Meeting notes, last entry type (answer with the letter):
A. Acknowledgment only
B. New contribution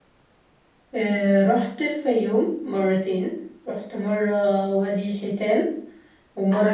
B